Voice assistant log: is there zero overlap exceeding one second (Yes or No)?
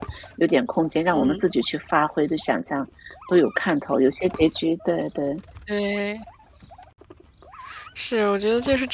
Yes